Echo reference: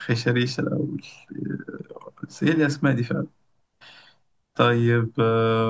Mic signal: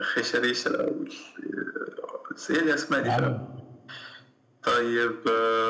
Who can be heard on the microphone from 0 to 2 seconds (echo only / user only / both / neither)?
echo only